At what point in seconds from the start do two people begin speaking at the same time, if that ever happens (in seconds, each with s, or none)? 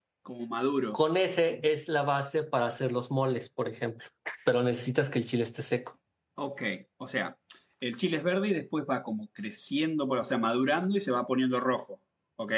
none